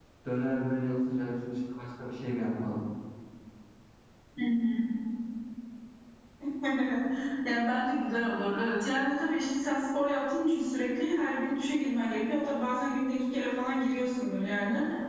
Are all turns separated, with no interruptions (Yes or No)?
Yes